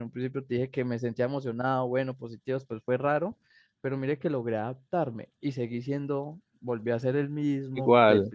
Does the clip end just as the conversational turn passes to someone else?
No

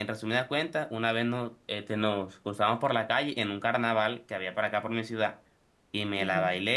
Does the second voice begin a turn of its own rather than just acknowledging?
No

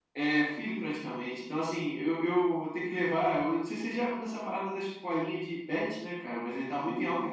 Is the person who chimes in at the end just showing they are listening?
Yes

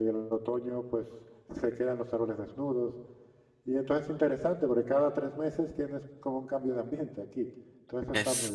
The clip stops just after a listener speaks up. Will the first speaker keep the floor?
No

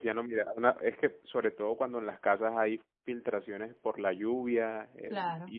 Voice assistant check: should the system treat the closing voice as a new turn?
No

